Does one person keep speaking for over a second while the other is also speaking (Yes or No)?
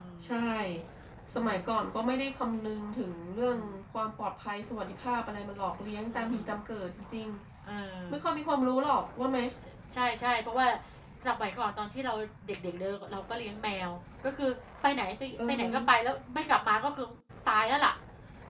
No